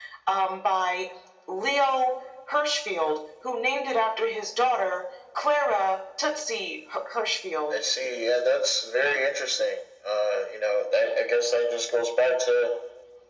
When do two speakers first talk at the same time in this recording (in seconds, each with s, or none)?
none